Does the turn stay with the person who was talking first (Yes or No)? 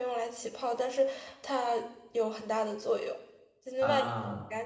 Yes